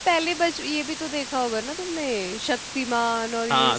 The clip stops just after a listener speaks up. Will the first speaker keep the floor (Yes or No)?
No